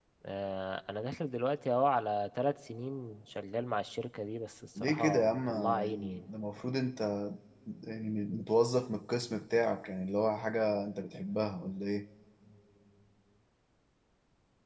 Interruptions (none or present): present